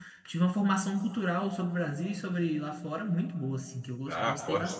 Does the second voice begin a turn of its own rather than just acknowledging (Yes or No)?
Yes